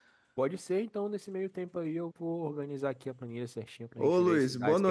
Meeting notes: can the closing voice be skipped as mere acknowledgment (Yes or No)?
No